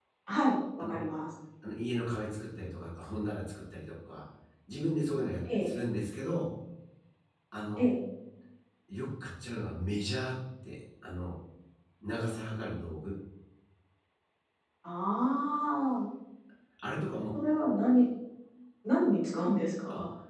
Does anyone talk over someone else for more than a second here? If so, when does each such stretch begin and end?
none

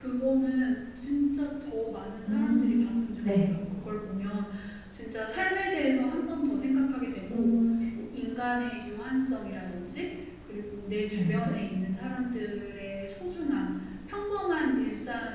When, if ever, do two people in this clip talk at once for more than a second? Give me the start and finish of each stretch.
2.3-3.5

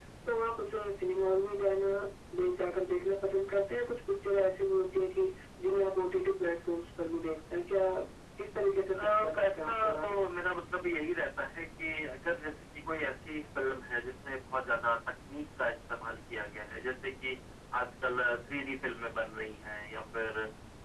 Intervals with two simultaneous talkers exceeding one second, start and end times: 9.0-10.2

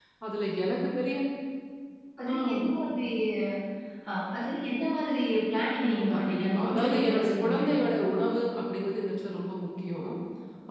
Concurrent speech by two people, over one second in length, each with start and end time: 5.8-7.7

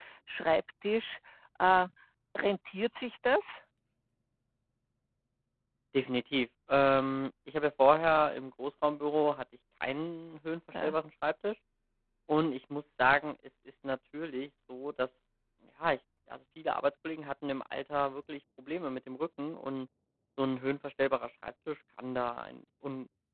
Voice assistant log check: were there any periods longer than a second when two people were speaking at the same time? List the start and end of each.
none

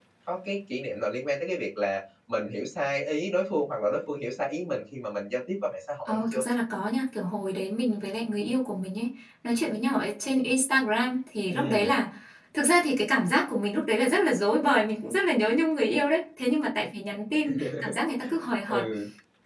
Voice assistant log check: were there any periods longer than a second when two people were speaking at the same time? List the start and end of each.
none

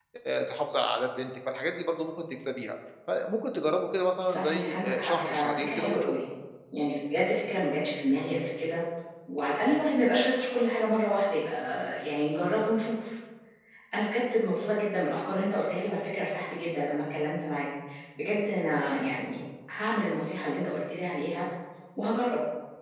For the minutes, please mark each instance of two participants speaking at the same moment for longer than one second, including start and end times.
4.3-6.1

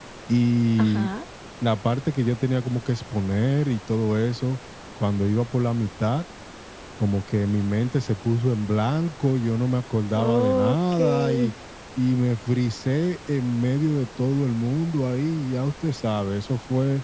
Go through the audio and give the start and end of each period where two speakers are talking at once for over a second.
10.2-11.5

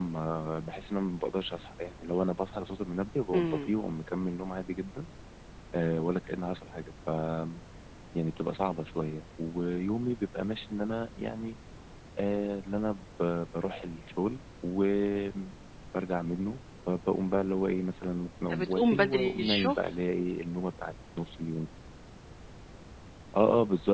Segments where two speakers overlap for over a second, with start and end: 18.5-19.8

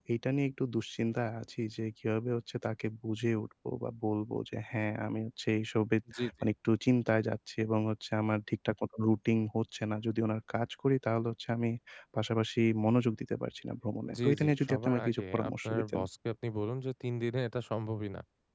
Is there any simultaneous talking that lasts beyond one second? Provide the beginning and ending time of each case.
14.2-16.0

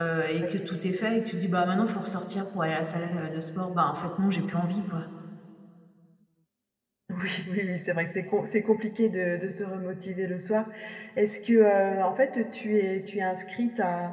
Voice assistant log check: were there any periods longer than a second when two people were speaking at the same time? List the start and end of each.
none

